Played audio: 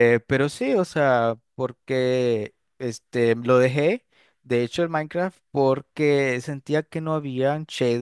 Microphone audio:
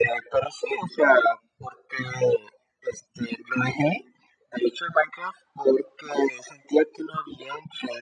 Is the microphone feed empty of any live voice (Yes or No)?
Yes